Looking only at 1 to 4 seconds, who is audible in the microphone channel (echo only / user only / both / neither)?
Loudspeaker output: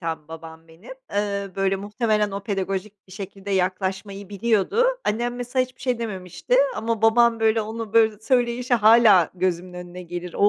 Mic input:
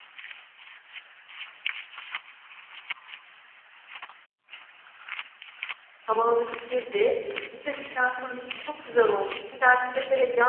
neither